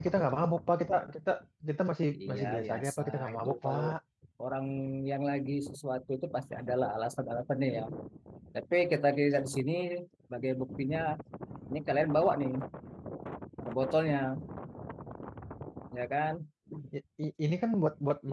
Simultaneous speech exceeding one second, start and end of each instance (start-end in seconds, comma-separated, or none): 2.2-3.8